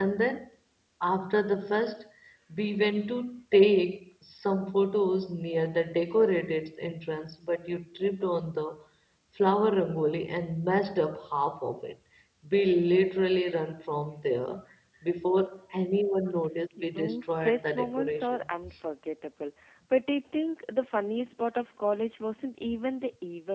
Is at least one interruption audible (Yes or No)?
Yes